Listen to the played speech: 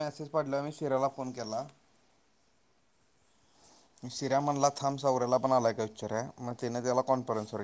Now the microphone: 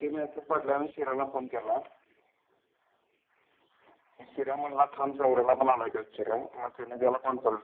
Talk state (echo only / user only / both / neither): echo only